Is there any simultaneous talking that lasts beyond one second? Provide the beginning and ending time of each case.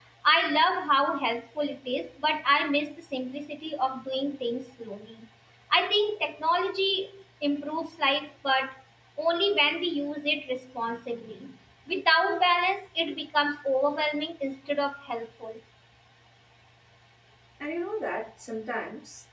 none

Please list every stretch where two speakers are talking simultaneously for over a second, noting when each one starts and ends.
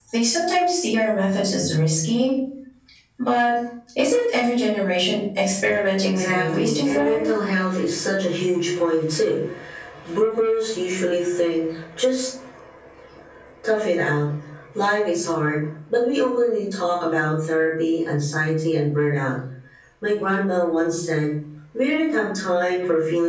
6.0-7.3

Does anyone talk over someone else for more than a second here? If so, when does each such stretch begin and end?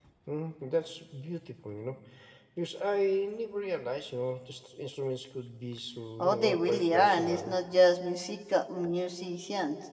6.2-7.5

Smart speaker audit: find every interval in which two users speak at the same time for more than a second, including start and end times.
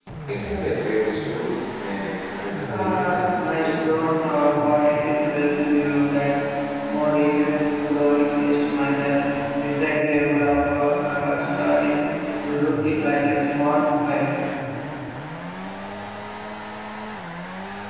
2.7-4.0

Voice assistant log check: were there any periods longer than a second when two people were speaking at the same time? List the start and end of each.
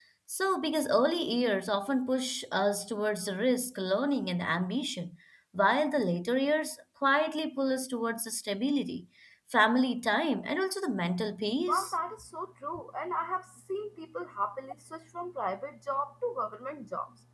none

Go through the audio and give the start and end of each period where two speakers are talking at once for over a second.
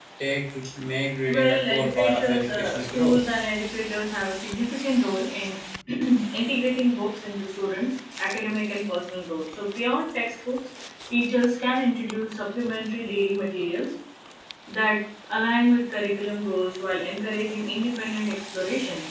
1.3-3.2

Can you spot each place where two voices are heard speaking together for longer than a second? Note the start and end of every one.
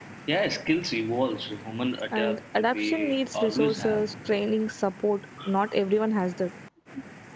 2.2-4.0

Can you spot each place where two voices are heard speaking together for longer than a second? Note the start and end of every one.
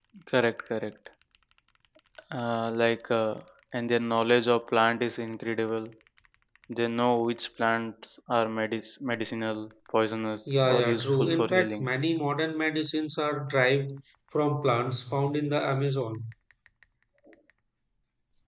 10.5-11.9

